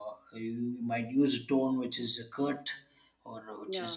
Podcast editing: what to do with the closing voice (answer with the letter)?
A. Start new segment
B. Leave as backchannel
B